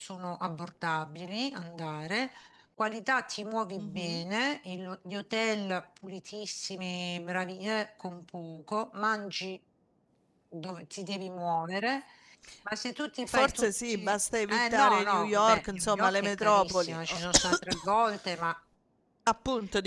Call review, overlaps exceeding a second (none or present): present